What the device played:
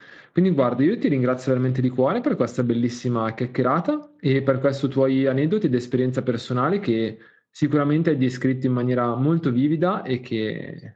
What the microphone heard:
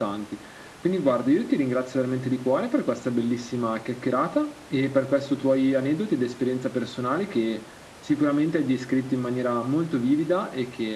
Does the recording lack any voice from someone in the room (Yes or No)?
Yes